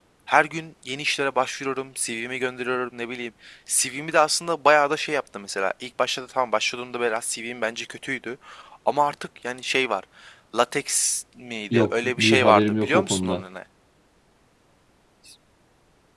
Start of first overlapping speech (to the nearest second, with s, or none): 12 s